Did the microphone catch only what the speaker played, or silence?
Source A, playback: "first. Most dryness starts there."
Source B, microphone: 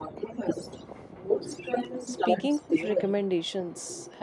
No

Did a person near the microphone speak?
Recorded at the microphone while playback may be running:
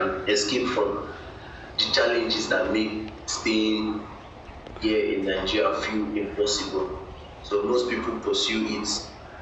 No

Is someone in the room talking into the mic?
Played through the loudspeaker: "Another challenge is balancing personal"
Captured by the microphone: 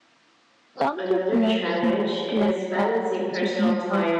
Yes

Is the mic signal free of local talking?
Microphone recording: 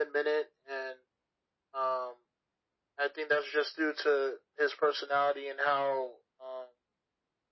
Yes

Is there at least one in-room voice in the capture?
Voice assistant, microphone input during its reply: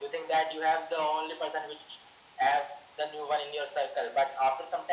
No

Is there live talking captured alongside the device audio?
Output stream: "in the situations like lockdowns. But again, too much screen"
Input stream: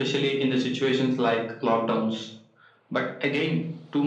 No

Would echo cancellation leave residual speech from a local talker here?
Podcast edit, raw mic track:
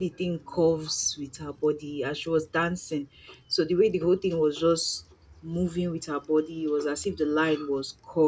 Yes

